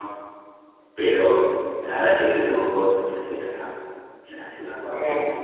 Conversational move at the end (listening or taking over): listening